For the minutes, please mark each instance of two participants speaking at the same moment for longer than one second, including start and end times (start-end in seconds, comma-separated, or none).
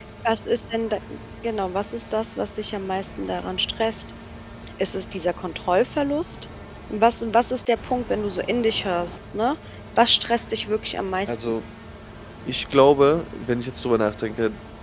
none